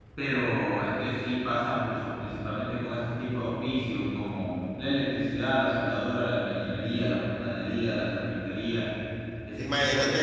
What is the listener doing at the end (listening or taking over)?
taking over